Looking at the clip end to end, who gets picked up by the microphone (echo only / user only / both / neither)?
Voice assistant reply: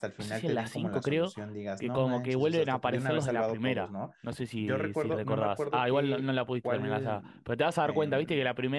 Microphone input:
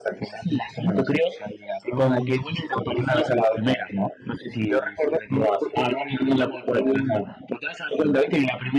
echo only